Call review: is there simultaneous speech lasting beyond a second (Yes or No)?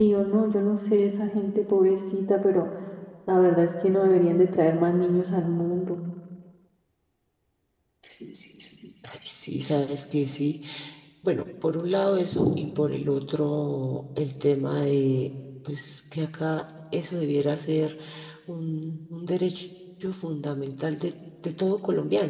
No